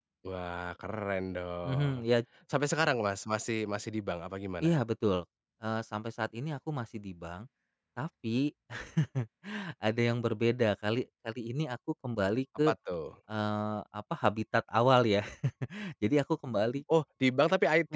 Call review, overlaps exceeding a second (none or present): none